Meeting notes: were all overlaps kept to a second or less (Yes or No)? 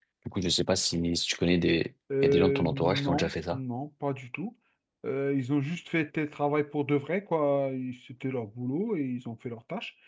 No